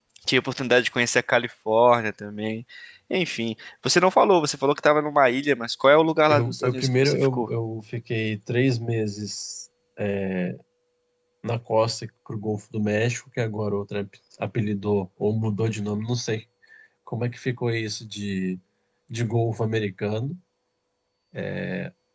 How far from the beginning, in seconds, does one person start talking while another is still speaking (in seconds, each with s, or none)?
6.3 s